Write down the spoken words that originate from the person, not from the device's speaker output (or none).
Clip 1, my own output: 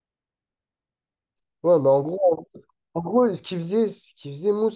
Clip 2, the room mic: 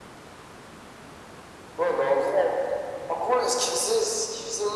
none